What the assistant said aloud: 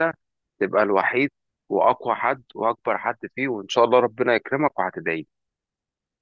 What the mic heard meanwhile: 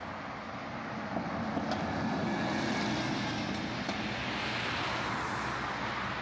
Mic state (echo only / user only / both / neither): neither